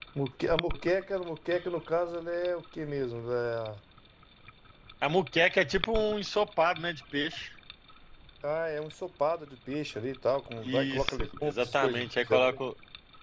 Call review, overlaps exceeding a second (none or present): present